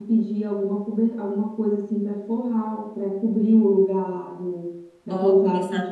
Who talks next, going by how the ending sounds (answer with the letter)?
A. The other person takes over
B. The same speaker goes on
A